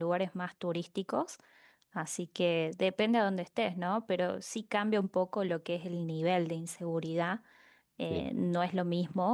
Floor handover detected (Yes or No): No